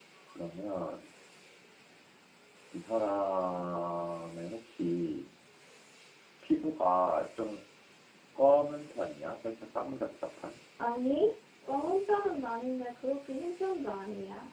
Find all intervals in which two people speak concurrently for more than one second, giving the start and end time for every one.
none

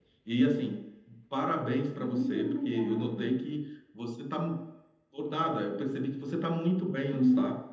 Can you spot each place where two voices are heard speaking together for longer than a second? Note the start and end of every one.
2.0-3.3

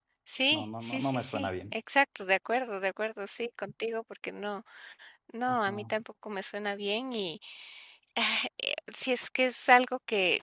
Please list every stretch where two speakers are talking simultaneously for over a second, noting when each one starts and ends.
0.5-1.7

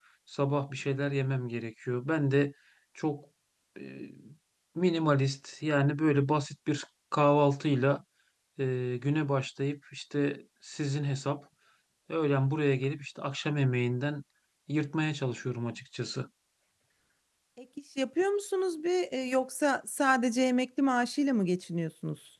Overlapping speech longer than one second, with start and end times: none

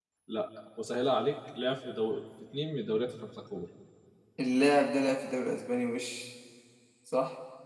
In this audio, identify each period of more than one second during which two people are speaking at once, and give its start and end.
none

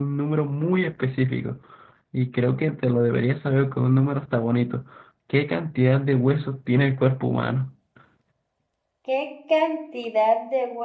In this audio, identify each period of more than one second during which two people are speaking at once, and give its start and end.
none

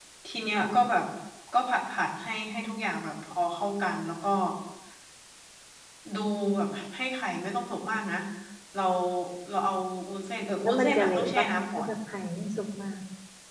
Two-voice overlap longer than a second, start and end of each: 10.6-11.9

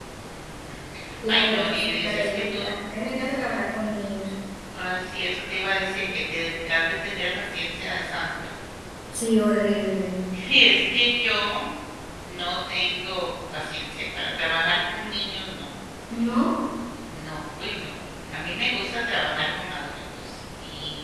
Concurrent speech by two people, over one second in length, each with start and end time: 1.3-2.7

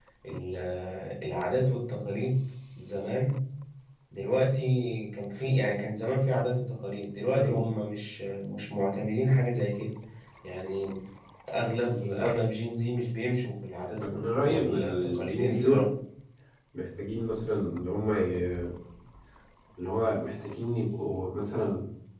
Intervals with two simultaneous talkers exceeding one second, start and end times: 14.0-15.8

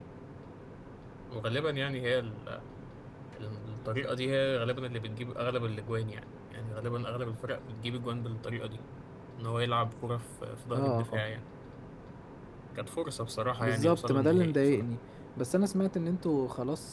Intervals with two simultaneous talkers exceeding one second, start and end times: 13.6-14.8

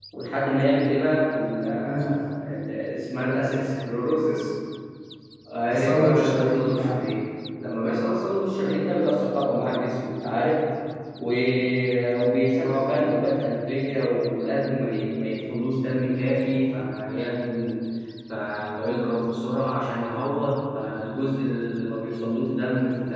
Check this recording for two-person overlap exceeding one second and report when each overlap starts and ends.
5.7-7.0

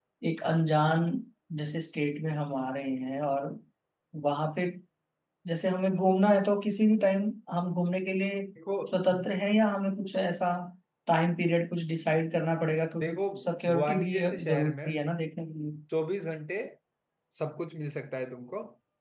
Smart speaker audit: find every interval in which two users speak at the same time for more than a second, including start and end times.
13.7-14.9

